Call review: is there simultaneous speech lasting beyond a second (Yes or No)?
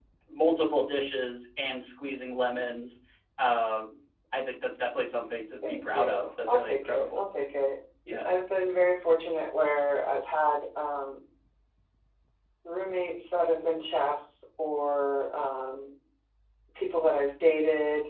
Yes